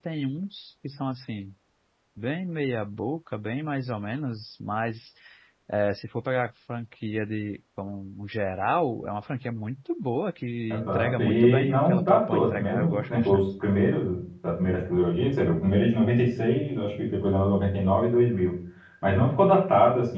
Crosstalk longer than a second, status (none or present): present